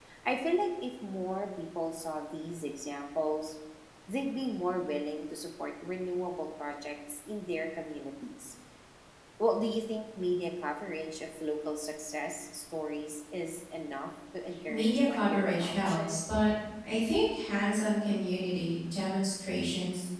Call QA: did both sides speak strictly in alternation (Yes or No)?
No